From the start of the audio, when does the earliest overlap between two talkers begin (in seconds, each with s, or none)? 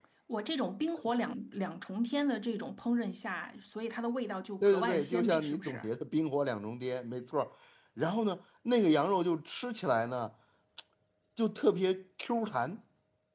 4.6 s